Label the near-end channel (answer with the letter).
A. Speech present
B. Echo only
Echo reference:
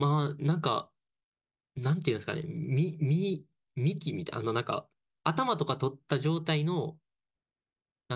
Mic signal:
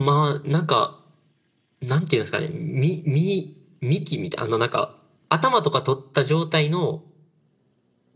B